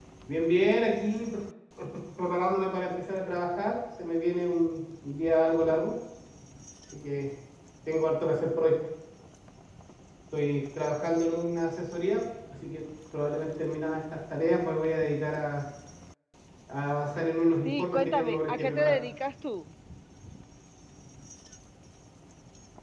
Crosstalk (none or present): present